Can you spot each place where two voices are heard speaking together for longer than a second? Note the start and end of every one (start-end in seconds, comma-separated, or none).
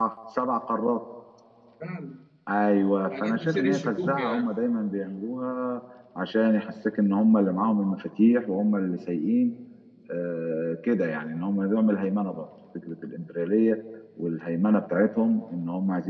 3.2-4.5